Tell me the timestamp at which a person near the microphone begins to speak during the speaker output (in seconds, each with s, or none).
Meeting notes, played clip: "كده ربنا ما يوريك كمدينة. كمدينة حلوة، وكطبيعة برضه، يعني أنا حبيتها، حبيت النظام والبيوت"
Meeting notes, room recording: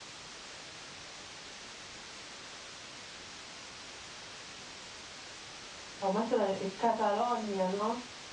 6.0 s